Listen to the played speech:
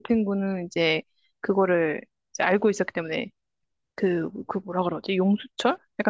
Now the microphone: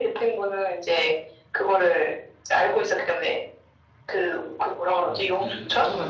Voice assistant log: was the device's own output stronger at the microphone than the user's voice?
Yes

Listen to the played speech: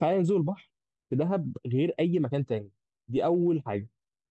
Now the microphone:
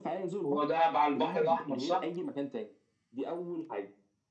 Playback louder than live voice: No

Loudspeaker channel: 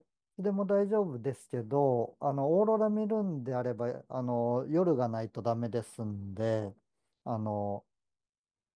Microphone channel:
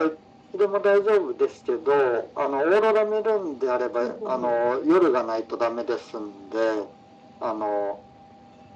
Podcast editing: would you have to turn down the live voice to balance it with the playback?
No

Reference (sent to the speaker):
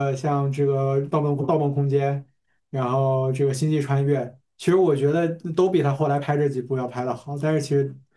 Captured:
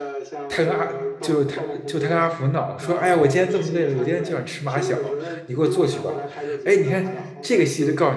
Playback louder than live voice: No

